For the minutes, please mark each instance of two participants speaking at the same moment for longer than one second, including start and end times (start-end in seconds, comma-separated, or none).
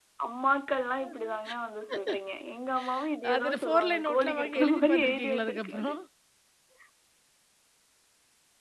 3.3-6.0